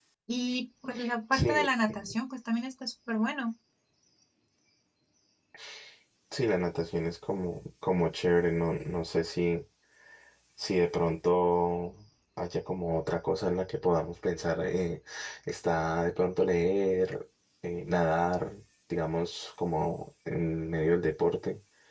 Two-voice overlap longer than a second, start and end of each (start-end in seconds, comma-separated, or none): none